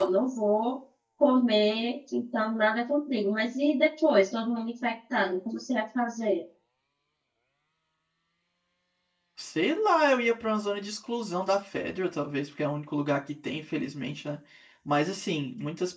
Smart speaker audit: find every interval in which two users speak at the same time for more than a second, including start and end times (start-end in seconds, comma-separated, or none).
none